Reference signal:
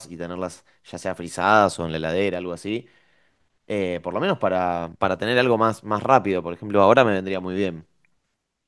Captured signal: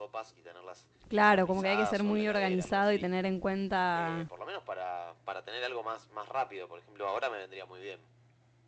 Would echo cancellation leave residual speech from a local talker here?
Yes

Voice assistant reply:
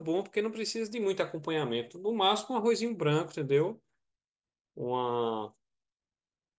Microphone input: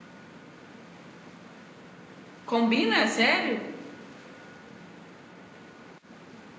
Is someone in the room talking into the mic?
Yes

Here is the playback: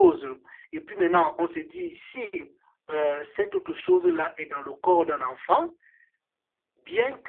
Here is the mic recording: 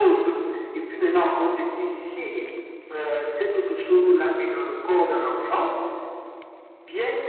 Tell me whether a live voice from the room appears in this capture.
No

